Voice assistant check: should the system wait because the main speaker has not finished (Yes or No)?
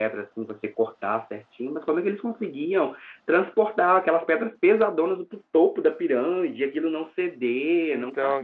Yes